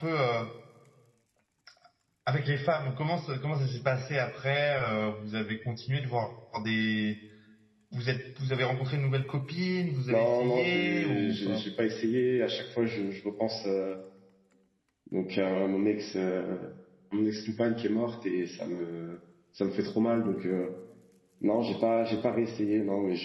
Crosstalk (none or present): present